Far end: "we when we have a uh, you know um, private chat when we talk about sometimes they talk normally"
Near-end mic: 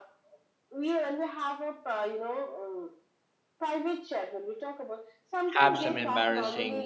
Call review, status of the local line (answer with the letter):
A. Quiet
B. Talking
B